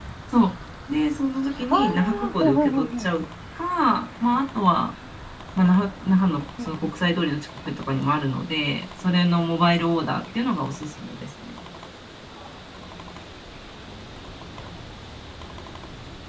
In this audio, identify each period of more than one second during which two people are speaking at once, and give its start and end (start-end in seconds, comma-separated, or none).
1.7-3.1